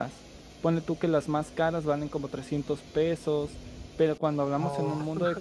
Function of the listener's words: listening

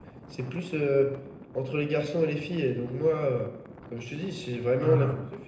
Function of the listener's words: listening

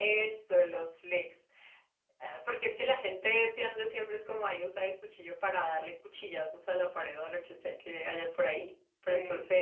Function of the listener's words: listening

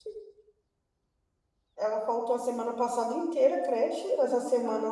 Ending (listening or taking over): listening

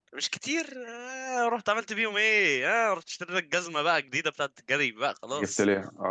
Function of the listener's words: taking over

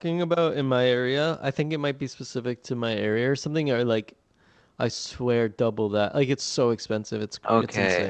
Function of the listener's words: taking over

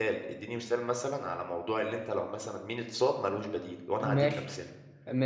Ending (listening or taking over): taking over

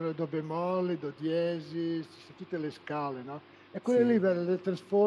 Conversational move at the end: listening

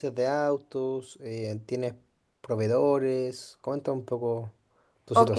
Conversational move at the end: taking over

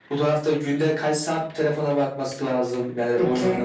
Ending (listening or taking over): listening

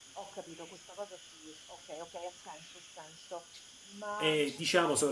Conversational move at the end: taking over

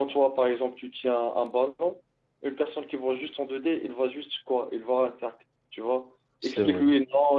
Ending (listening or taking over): listening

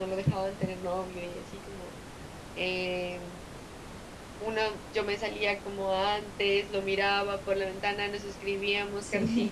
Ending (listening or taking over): listening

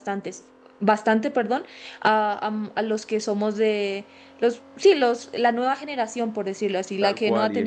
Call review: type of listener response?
taking over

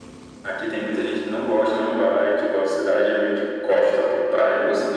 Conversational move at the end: listening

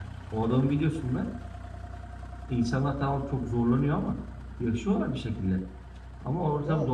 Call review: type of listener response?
listening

